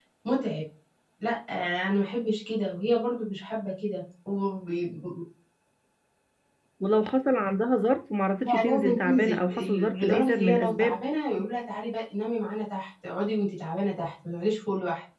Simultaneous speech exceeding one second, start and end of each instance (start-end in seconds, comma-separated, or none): 8.4-11.0